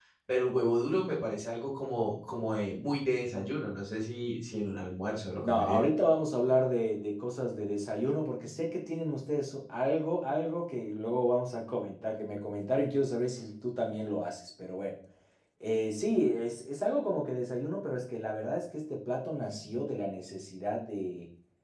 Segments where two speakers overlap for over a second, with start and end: none

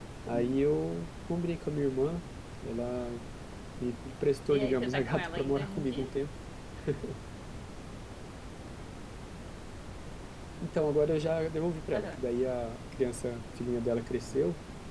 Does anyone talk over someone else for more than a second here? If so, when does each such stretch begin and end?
4.5-6.1

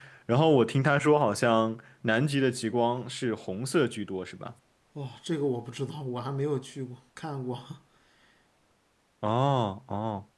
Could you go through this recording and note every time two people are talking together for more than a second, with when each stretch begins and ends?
none

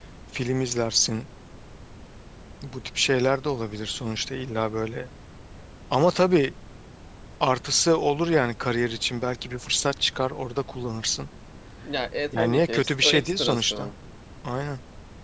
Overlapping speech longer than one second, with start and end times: 12.3-13.9

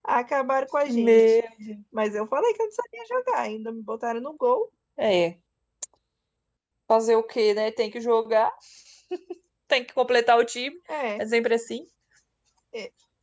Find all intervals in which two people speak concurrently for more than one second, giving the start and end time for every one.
none

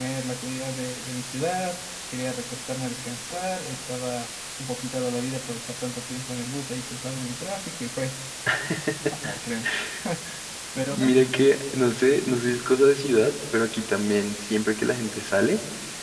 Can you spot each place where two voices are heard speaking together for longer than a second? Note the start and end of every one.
none

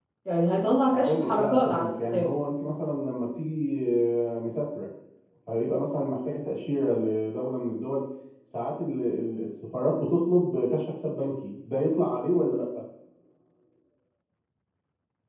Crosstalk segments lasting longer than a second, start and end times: 0.9-2.3

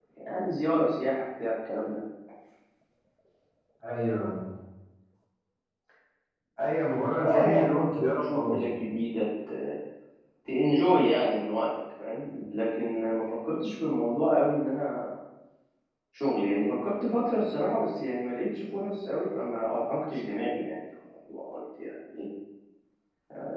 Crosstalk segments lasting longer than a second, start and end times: 7.2-8.6

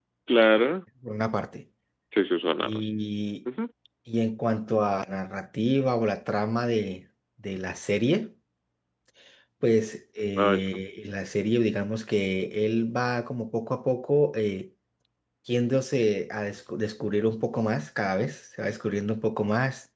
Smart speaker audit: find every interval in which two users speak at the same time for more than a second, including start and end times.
none

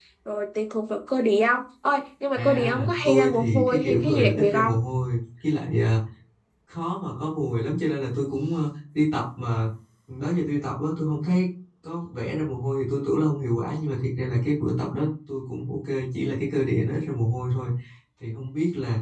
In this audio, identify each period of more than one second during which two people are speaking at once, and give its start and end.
2.4-4.7

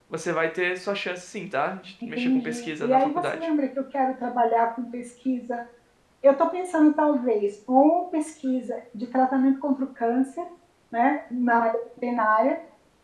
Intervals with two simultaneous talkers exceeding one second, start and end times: 2.0-3.5

